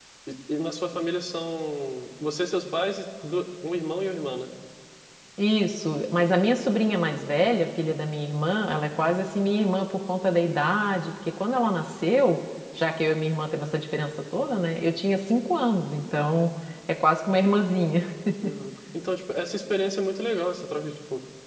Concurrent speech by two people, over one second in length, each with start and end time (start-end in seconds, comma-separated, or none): none